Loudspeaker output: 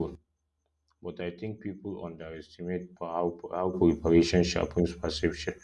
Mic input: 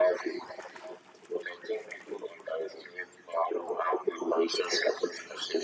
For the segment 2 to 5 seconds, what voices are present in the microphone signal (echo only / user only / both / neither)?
echo only